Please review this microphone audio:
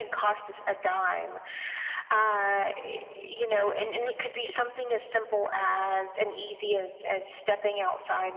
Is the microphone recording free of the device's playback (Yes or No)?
No